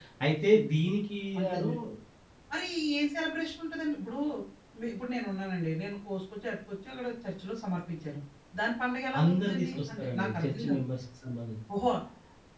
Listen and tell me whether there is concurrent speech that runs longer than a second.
Yes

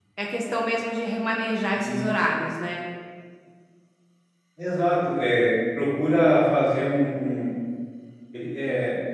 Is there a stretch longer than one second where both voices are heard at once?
No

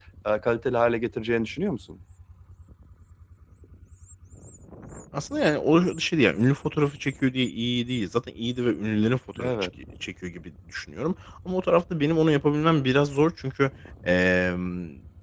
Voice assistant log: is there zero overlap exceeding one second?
Yes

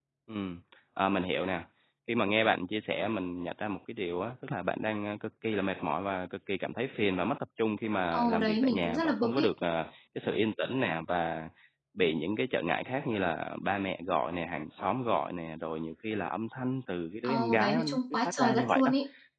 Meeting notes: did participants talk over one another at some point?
Yes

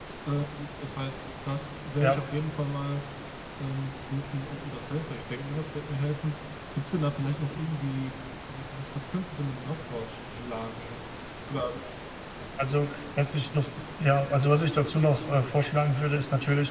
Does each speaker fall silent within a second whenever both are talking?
Yes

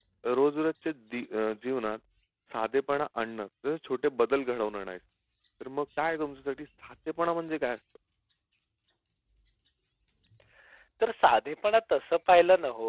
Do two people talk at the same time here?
No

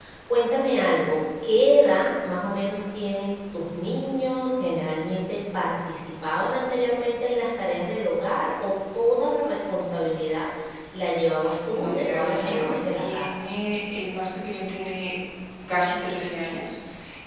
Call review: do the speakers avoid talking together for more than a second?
No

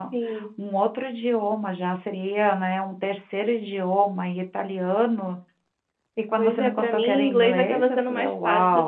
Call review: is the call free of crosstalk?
No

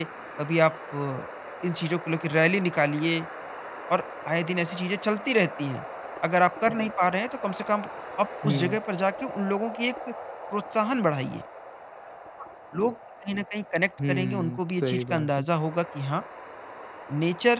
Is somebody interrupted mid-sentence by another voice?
Yes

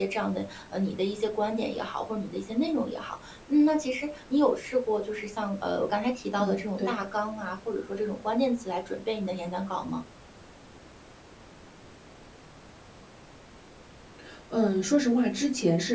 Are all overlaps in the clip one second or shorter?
Yes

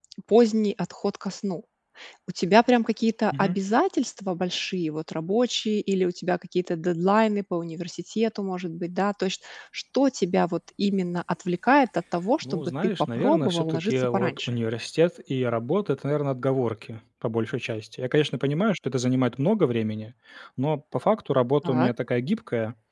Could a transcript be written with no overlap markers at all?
No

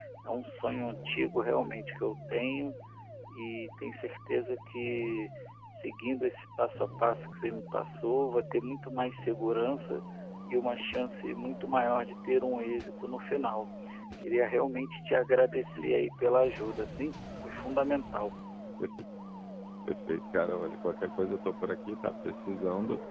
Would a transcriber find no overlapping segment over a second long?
Yes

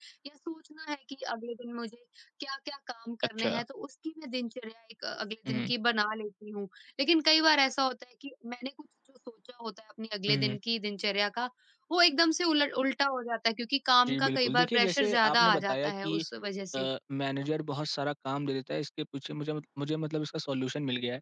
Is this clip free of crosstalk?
No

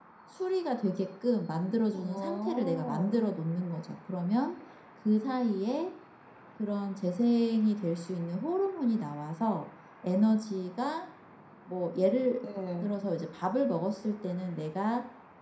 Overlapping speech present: Yes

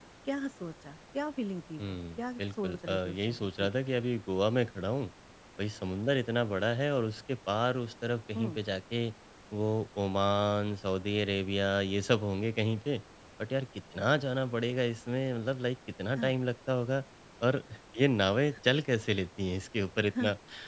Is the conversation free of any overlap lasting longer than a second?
No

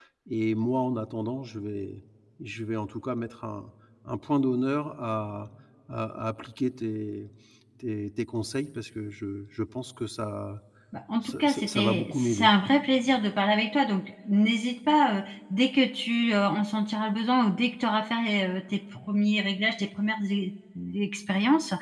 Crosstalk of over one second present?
Yes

